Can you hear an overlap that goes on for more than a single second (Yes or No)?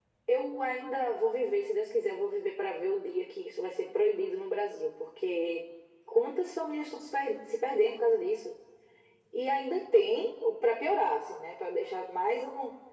No